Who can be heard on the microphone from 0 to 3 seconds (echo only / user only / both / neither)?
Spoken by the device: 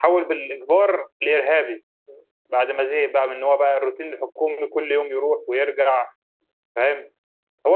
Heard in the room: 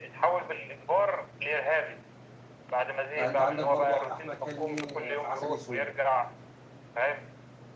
echo only